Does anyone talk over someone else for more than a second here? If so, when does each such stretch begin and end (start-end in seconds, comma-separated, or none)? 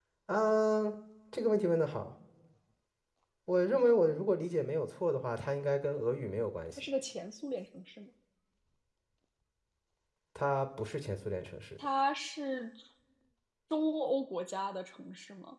none